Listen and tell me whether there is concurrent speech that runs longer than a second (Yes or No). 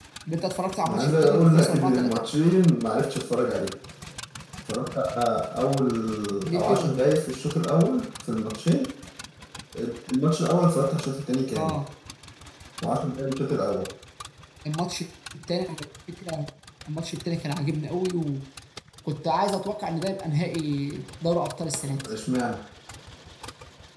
Yes